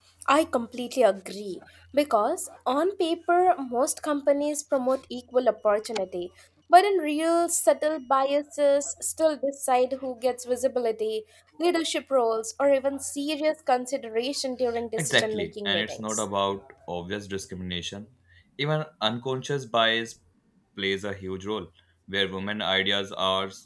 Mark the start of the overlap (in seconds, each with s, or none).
15.0 s